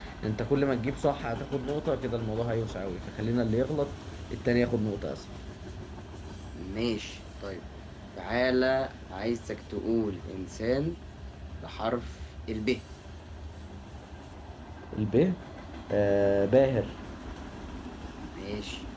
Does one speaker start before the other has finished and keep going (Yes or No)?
No